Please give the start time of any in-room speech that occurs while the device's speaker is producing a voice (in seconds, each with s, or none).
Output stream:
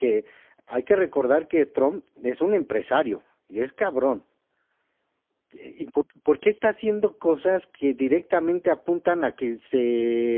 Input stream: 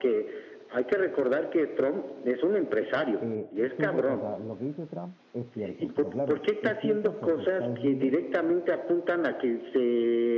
3.2 s